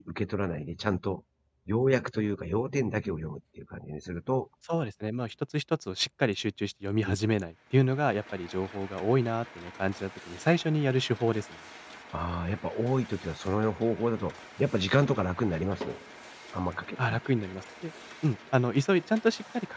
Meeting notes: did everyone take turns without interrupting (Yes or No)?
Yes